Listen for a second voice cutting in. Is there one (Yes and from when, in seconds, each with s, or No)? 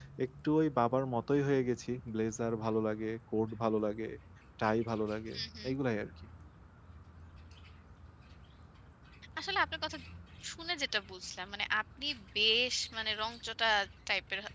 No